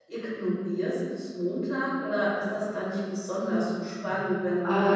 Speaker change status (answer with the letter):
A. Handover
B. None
A